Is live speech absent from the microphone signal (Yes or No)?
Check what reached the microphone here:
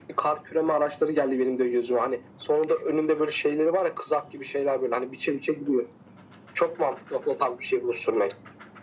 Yes